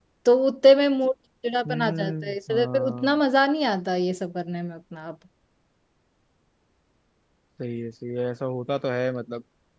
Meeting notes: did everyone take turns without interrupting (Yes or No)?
No